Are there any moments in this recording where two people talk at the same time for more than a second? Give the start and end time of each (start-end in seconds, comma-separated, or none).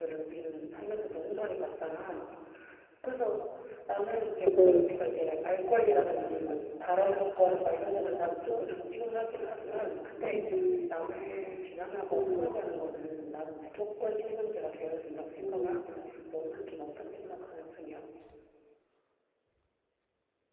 none